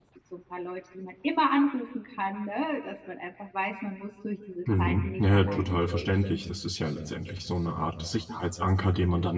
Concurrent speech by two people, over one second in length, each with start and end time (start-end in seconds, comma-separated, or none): 4.8-6.1